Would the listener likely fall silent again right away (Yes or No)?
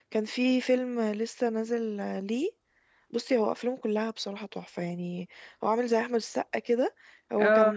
Yes